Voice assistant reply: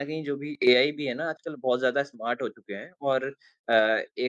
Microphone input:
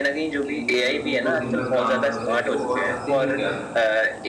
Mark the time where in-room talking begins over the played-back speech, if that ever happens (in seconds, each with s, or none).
0.5 s